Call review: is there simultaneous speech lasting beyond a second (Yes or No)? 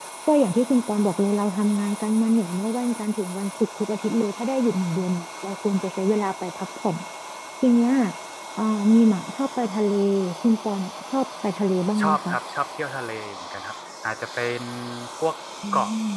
No